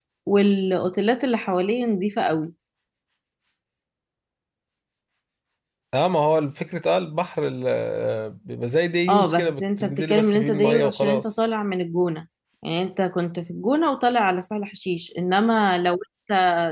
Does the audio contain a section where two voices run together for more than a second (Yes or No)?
Yes